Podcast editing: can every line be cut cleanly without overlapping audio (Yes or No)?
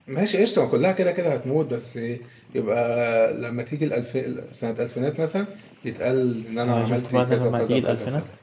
No